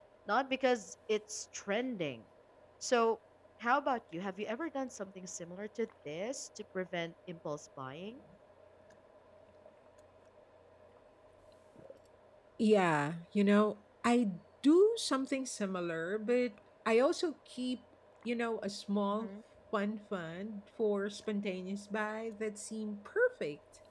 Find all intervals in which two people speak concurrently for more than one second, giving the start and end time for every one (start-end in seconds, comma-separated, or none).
none